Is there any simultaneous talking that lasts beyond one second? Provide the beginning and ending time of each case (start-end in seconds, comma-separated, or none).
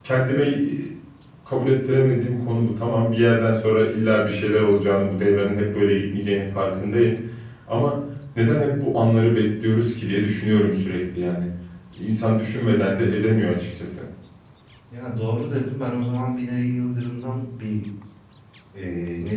none